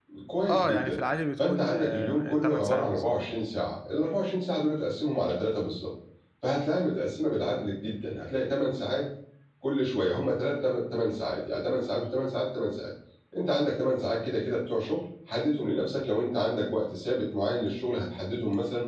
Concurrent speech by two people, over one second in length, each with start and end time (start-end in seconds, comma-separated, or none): 1.4-3.1